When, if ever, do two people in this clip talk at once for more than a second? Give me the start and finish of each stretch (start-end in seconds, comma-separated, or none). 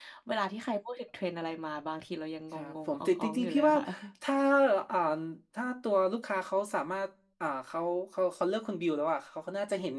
2.5-3.8